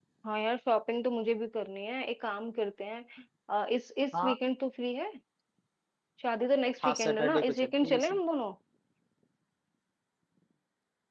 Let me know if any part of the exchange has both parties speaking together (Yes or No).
Yes